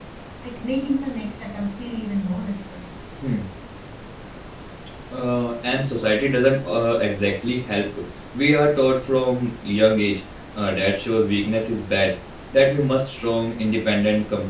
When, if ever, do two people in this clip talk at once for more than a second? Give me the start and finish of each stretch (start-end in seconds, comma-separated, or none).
none